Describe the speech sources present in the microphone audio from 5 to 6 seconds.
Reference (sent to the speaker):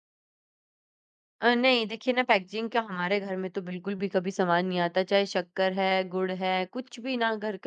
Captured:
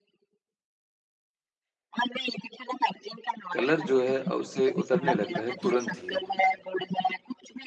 both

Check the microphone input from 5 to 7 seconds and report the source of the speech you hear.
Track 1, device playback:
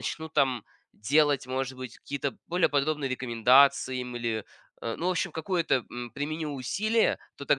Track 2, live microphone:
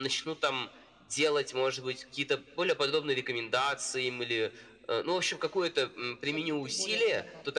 both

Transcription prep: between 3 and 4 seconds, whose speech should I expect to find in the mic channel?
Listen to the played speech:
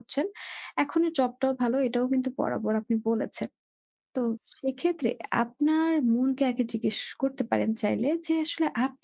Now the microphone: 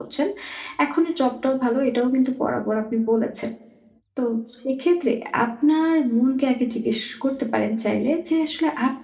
echo only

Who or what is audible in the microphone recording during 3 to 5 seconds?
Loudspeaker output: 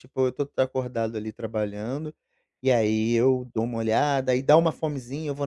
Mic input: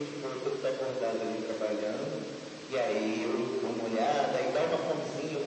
echo only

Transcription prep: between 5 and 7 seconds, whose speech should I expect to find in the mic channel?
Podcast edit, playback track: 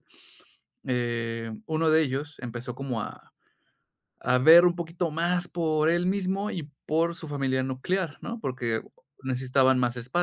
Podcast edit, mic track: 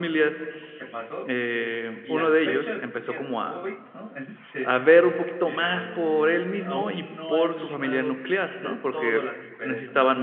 both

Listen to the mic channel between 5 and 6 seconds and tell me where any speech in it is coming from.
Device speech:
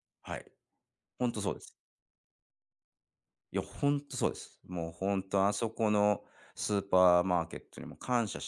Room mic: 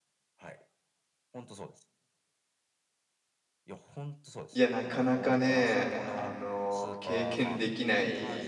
both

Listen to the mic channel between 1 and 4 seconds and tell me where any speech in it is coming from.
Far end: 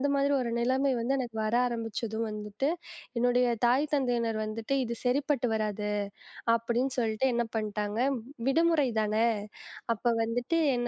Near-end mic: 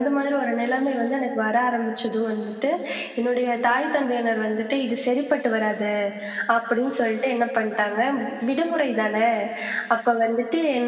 echo only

